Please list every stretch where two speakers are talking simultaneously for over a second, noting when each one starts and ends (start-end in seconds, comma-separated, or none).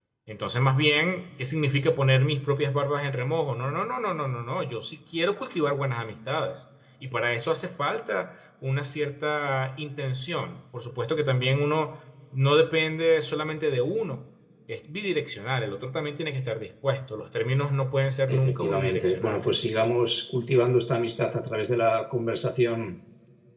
18.3-19.6